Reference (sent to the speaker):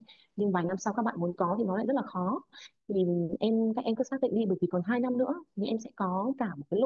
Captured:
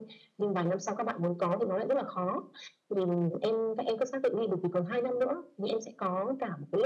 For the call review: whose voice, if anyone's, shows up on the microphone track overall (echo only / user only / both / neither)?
echo only